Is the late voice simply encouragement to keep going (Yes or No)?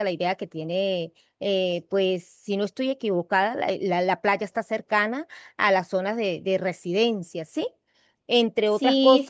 No